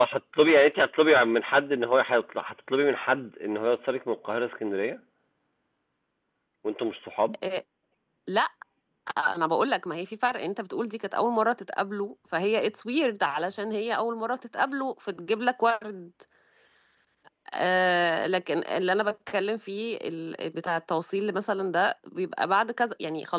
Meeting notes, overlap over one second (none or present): none